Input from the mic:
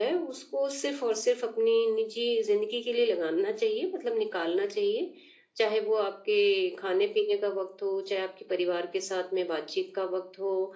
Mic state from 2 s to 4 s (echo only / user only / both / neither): echo only